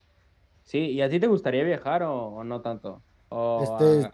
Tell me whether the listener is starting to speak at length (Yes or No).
Yes